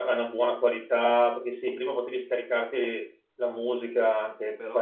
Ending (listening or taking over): listening